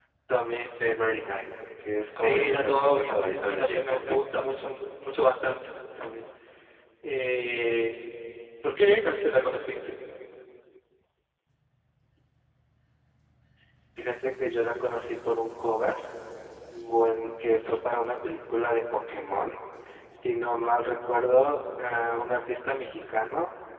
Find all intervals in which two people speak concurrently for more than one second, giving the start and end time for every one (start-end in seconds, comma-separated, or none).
2.2-4.0